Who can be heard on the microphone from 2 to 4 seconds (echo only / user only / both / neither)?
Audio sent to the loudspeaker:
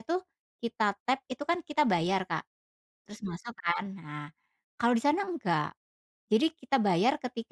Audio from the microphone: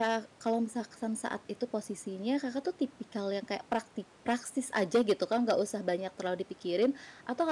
user only